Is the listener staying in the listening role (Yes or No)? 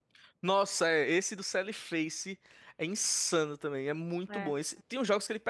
Yes